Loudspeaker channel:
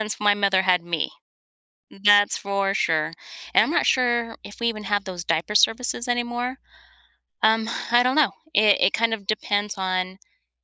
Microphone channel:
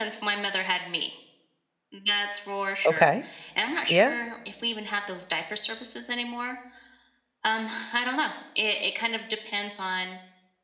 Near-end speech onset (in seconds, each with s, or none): 2.8 s